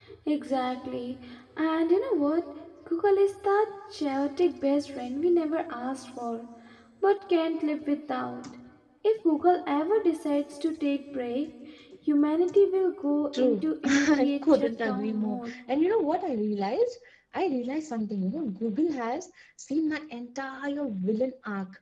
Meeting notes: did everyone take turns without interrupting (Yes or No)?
No